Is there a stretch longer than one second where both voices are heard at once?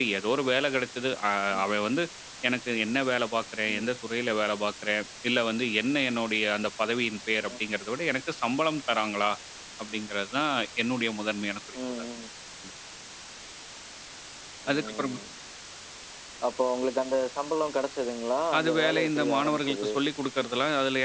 Yes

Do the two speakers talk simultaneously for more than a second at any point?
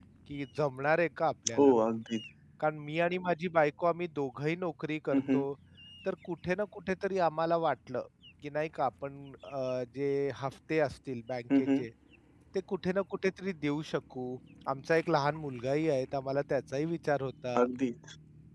No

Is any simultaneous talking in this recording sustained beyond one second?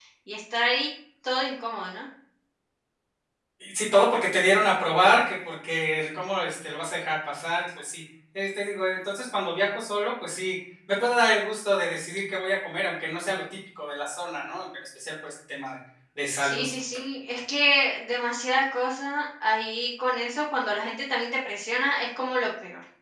No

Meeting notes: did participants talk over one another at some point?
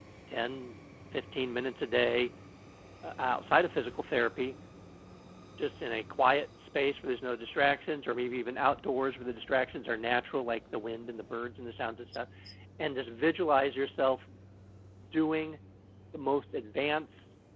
No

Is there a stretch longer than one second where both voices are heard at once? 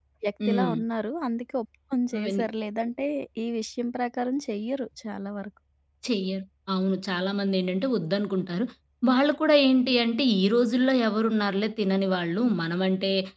No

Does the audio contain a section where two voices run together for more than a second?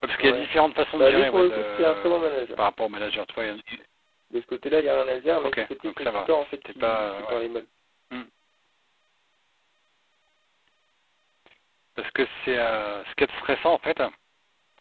Yes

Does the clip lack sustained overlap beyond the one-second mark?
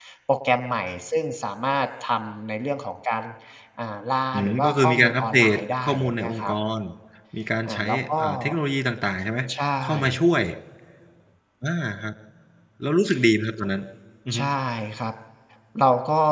No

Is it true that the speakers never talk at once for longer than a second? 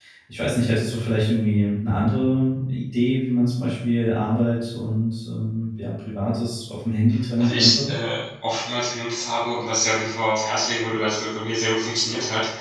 Yes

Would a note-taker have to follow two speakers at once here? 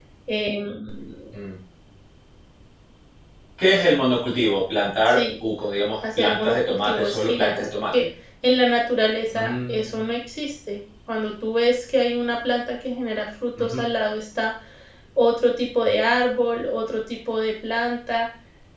Yes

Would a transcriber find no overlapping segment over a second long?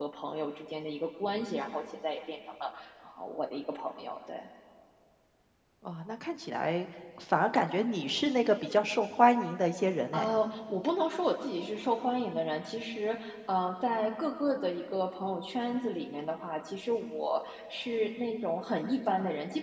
Yes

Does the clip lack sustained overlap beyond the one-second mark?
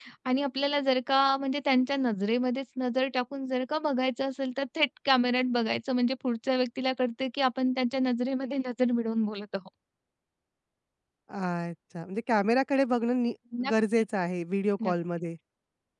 Yes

